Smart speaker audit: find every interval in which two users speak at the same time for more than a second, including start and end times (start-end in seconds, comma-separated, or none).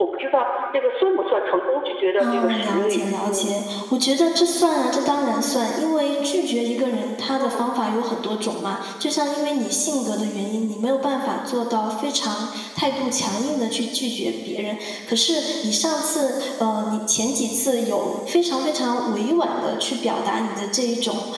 2.2-3.5